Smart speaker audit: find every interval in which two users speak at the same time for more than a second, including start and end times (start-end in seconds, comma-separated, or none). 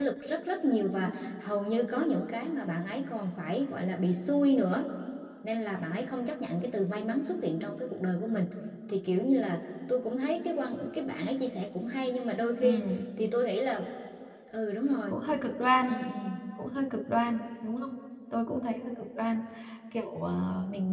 none